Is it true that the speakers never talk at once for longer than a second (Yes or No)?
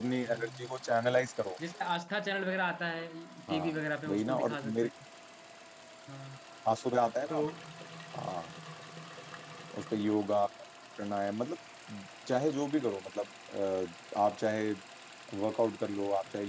No